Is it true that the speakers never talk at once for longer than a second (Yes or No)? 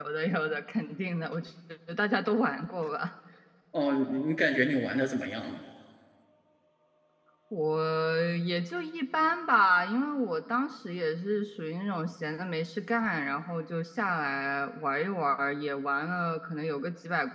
Yes